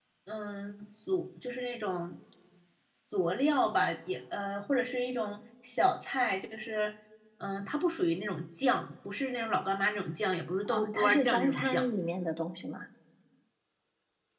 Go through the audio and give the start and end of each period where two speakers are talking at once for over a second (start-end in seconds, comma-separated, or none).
10.7-11.9